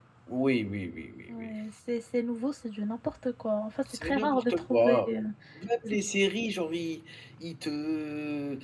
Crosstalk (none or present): present